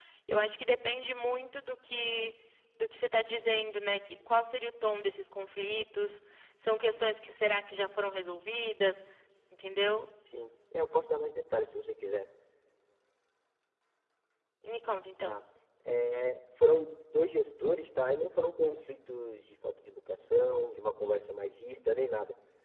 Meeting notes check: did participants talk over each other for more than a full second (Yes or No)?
No